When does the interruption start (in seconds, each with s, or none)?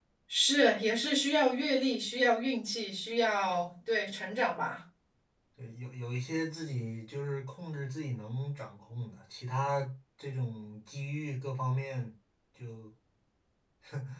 none